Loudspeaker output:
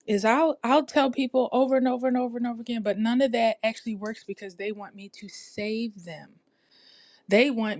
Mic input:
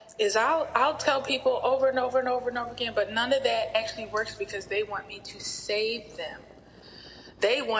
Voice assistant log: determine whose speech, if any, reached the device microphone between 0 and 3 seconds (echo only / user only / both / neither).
echo only